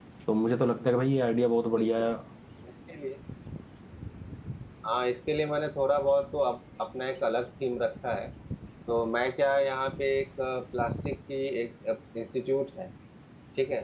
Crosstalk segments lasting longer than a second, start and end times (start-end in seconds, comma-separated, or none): none